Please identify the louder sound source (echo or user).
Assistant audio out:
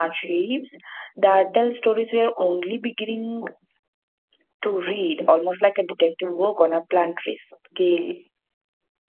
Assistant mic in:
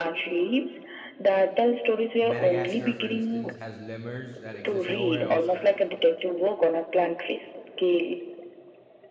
echo